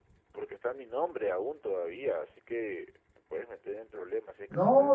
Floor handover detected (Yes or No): Yes